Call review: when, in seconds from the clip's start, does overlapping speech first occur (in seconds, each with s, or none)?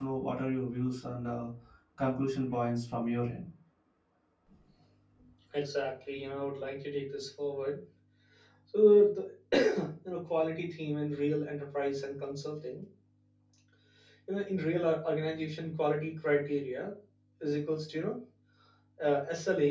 none